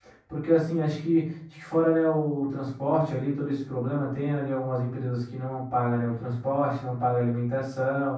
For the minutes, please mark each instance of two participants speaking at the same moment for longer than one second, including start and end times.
none

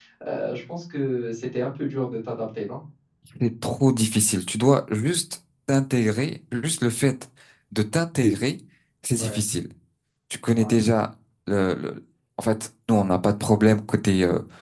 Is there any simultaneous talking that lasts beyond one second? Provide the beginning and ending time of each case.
none

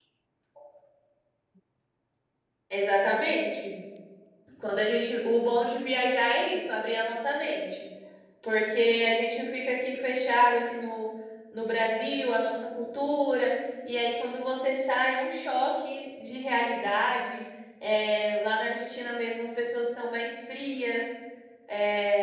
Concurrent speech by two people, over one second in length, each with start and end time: none

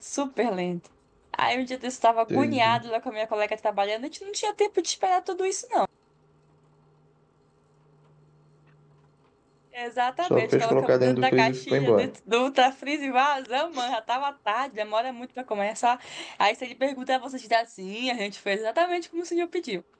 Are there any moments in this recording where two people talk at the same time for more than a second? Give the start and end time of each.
10.2-12.1

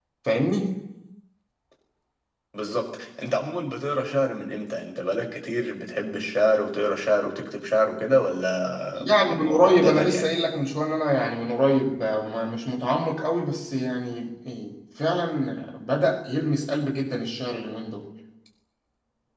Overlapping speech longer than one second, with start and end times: 8.9-10.3

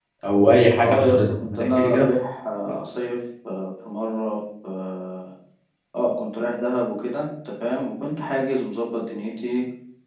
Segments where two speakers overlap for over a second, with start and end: 0.8-2.0

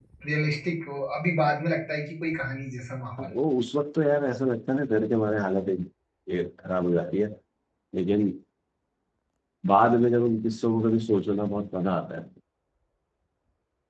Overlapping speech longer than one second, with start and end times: none

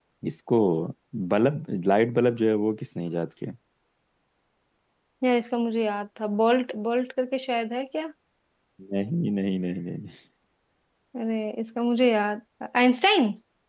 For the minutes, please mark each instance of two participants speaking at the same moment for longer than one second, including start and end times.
none

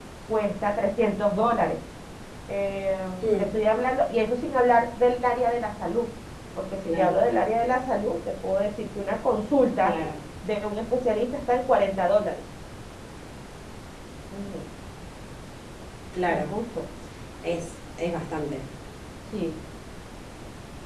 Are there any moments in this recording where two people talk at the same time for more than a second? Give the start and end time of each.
none

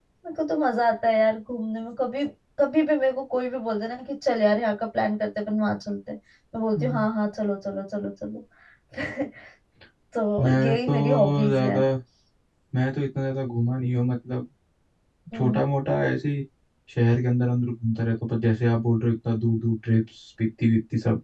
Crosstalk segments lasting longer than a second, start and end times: 10.4-11.8

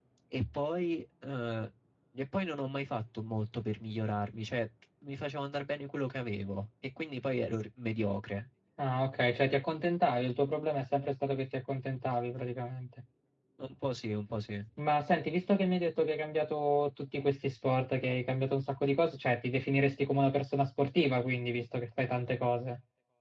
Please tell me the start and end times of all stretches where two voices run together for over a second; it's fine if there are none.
none

